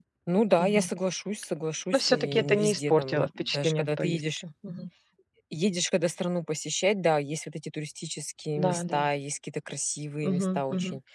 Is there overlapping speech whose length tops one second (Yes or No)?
Yes